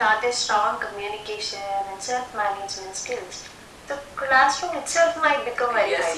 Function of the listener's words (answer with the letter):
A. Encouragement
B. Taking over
B